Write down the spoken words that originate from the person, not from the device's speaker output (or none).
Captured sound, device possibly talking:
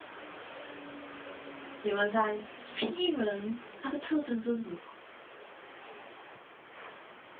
你们三 P 人，他的特征是什么？